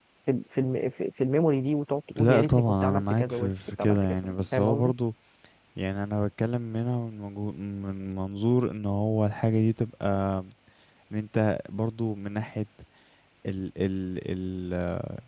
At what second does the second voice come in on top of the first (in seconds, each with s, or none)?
2.2 s